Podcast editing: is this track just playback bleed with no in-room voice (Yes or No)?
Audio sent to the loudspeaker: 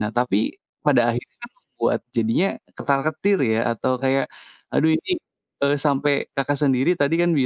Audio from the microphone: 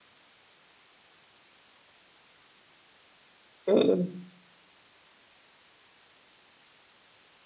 No